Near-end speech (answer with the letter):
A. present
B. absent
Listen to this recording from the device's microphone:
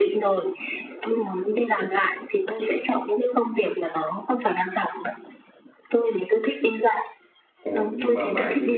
A